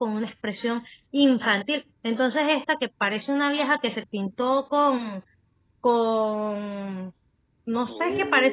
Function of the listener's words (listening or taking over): listening